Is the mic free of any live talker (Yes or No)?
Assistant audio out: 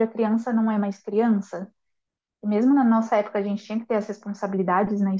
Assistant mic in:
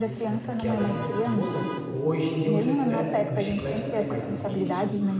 No